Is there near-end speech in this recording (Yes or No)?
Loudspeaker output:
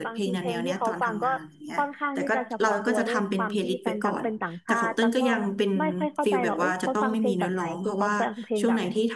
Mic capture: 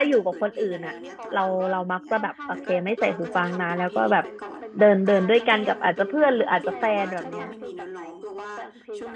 Yes